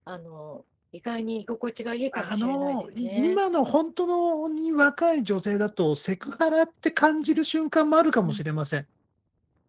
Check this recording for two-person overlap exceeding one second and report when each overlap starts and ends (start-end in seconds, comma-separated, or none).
2.1-3.4